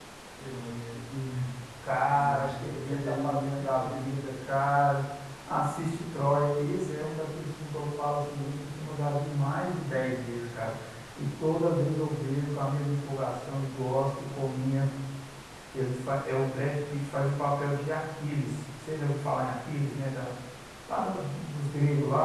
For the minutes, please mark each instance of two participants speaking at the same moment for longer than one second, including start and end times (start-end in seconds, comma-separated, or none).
2.1-4.3